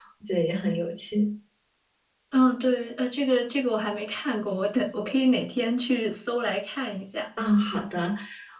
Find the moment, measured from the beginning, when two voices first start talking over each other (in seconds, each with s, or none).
none